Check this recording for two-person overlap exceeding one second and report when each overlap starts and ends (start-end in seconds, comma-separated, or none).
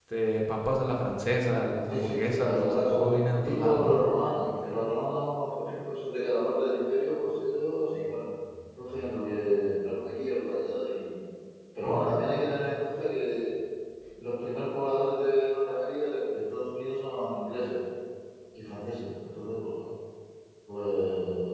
1.9-4.0